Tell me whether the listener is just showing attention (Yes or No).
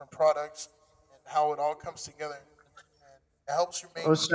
Yes